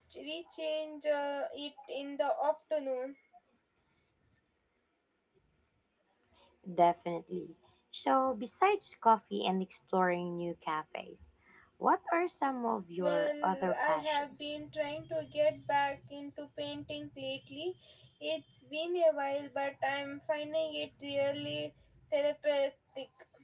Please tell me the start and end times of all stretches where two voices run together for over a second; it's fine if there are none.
13.0-14.5

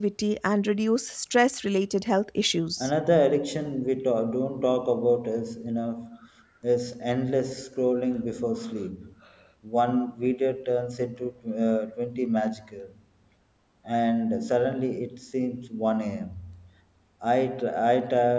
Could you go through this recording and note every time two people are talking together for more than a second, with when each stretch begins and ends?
none

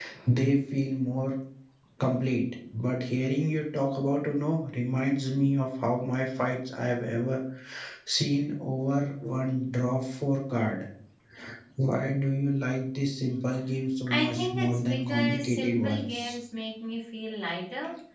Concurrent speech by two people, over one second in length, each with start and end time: 14.1-16.4

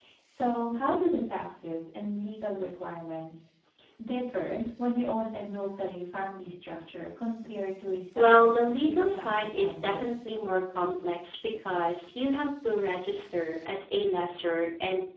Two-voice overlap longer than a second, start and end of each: 8.2-10.1

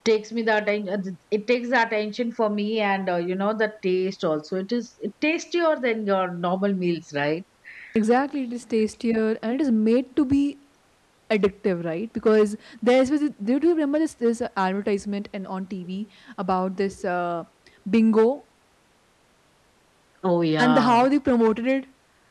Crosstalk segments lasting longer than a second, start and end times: none

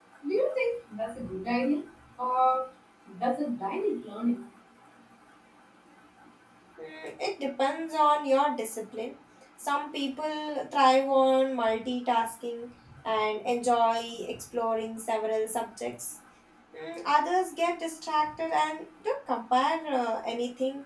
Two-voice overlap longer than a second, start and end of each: none

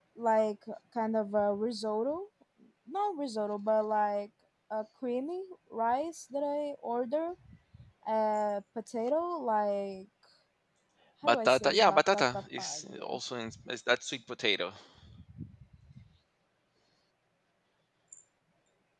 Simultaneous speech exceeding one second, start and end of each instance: 11.2-13.2

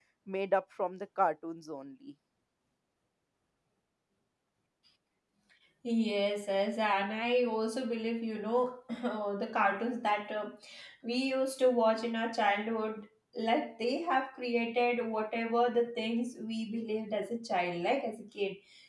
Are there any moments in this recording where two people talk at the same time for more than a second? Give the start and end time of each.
none

